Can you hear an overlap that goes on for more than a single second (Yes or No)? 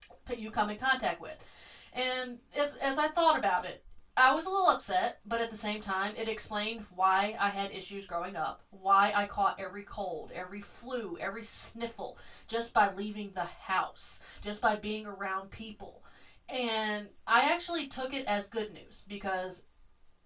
No